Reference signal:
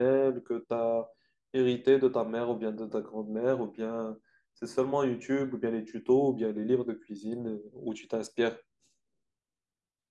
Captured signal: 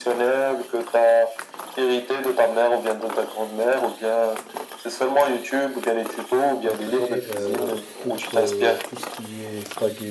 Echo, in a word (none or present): present